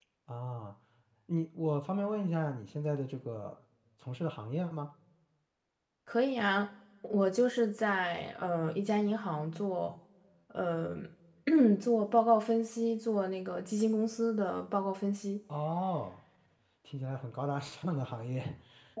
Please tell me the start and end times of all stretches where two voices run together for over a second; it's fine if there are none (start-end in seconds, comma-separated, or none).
none